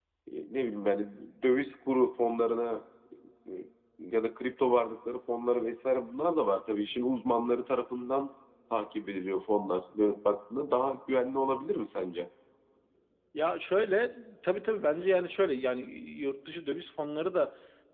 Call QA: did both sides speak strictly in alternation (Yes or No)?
Yes